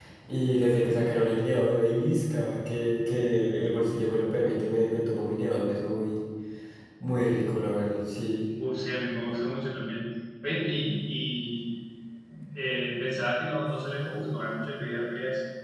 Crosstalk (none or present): none